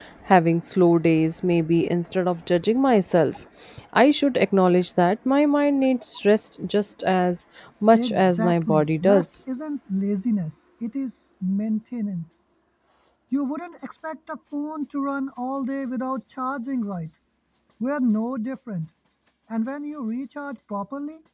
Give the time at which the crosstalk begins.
7.9 s

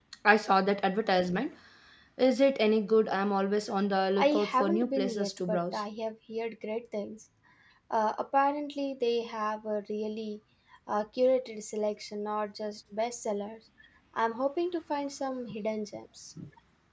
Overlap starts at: 4.2 s

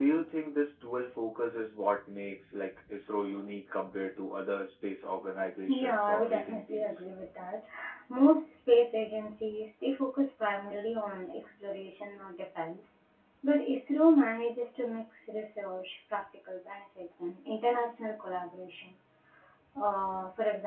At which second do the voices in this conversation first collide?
5.7 s

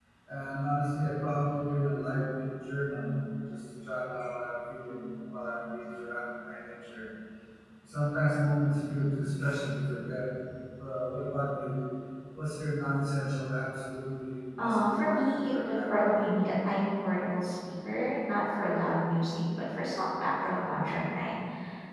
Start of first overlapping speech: 14.6 s

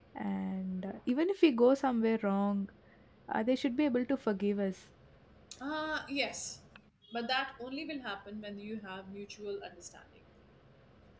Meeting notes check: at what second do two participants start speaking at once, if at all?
none

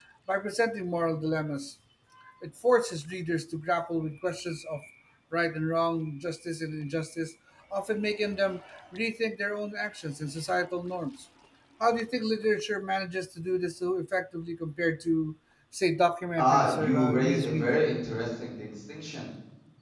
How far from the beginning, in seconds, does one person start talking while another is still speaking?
16.4 s

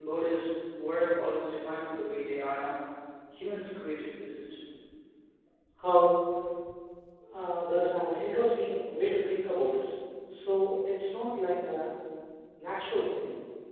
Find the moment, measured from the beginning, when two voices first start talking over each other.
none

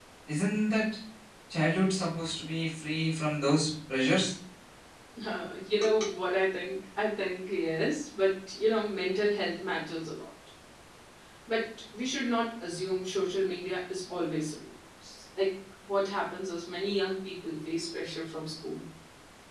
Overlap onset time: none

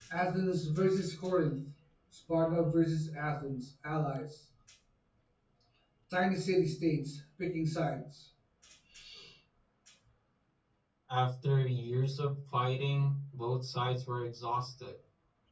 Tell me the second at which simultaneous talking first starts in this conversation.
none

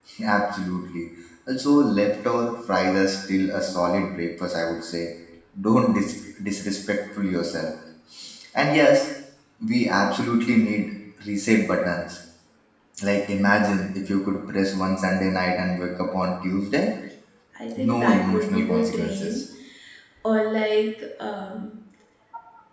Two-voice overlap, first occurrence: 17.8 s

